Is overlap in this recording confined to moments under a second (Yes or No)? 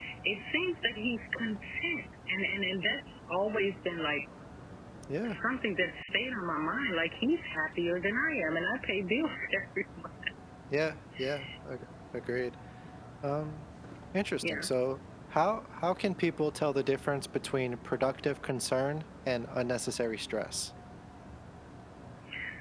Yes